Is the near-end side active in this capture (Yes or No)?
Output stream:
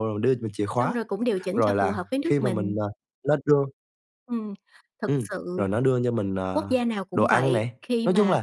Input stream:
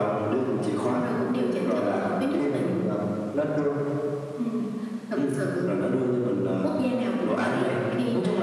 No